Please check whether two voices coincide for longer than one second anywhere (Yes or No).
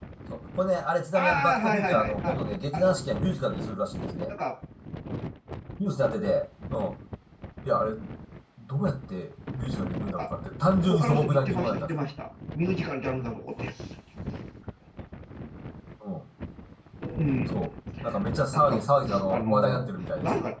Yes